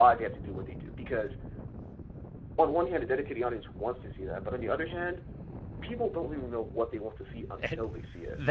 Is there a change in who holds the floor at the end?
Yes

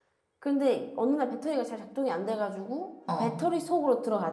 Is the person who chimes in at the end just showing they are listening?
Yes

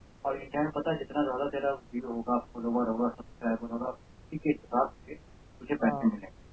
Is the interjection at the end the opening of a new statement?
No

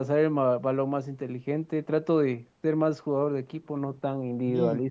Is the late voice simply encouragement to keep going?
No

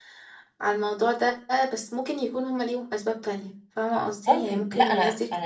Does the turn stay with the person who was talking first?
No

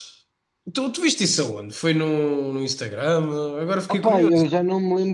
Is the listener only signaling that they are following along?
No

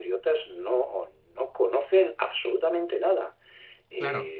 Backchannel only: No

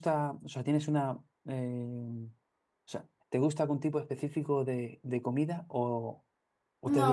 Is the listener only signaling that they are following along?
No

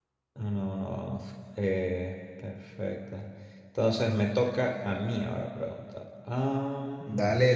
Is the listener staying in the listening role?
No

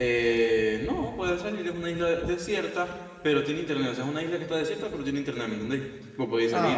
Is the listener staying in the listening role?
No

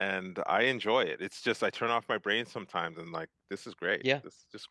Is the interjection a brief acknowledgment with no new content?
No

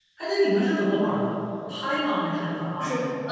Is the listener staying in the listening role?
No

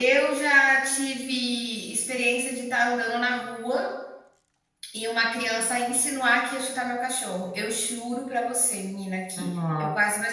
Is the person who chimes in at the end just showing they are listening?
Yes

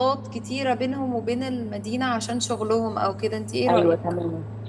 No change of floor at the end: No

